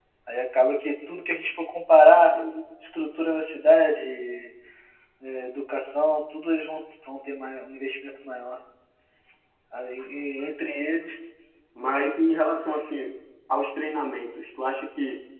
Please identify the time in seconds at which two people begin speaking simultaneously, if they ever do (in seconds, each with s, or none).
none